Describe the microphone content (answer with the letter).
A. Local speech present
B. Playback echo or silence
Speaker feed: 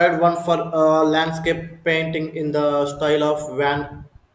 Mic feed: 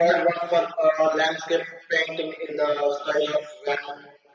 B